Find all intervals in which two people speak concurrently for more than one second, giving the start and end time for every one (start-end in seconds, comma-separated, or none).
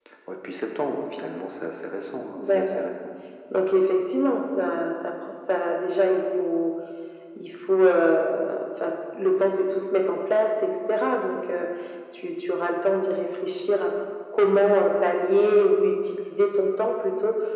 none